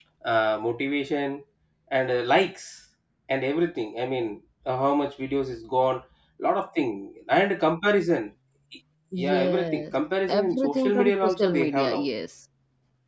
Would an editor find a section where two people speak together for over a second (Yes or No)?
Yes